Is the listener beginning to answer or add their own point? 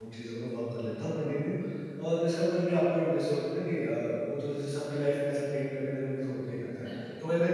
No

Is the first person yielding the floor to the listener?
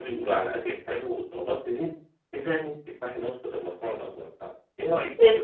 Yes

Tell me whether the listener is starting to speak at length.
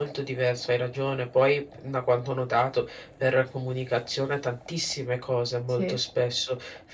No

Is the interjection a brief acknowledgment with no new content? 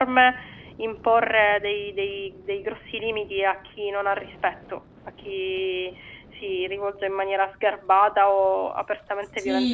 No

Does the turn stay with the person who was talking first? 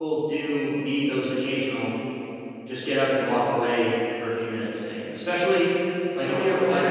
Yes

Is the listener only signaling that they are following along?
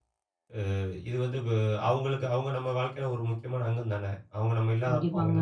No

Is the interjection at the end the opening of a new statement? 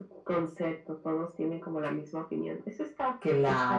Yes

